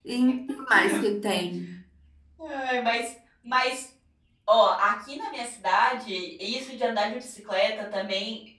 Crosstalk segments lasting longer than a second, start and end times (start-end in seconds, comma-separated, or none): none